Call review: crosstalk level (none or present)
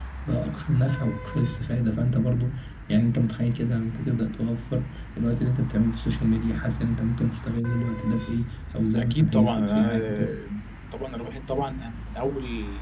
present